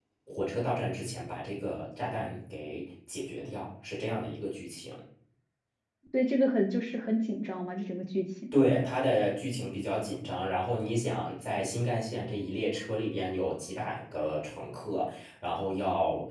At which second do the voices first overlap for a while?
none

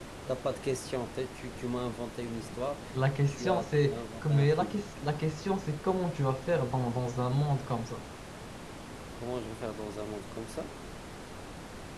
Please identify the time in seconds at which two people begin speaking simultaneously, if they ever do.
3.3 s

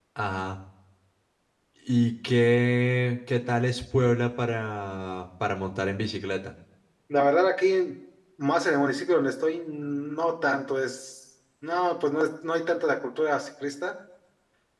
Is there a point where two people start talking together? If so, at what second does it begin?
none

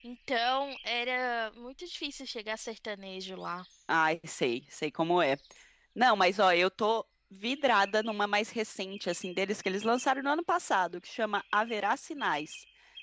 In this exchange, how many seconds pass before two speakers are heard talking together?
none

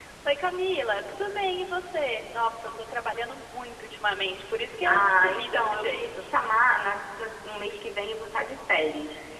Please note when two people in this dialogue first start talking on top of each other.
4.8 s

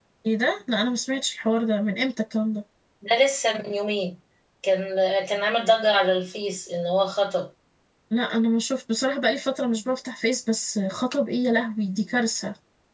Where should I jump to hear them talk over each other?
none

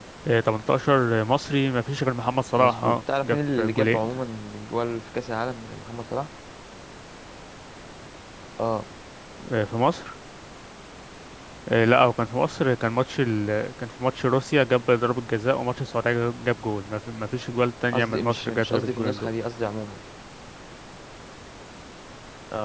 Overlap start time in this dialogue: 2.6 s

